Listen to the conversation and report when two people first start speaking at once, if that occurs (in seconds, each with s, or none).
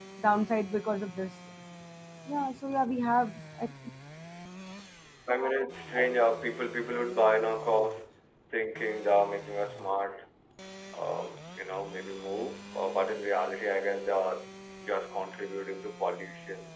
none